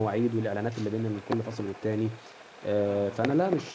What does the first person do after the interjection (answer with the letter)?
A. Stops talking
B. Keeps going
B